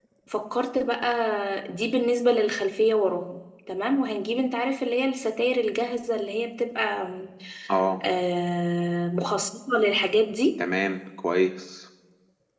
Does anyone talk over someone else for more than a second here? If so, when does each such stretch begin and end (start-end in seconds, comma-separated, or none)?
none